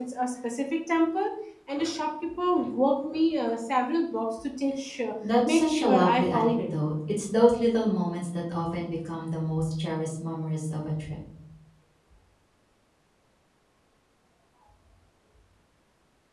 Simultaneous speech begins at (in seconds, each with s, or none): 5.2 s